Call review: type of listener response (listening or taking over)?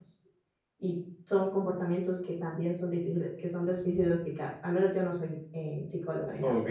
taking over